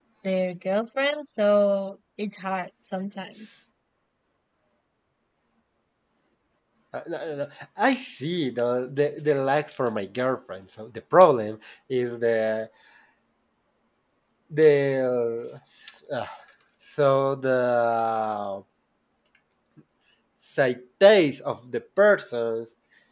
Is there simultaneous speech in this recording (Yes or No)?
No